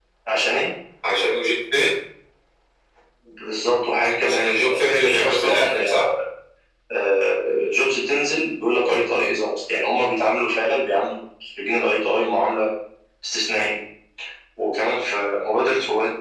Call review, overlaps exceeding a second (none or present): present